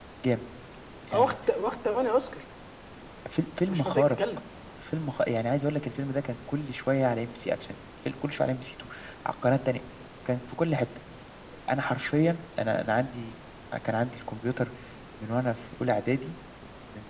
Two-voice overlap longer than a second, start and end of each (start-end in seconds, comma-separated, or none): none